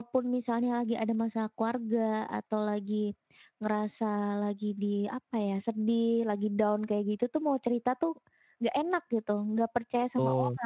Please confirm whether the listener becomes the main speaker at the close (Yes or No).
Yes